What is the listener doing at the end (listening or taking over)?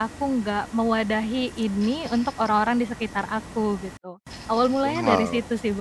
taking over